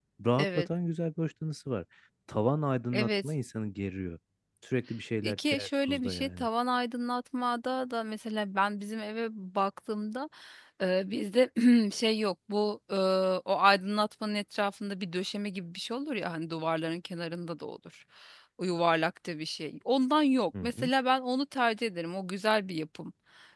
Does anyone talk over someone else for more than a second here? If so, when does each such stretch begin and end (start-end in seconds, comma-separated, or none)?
5.2-6.5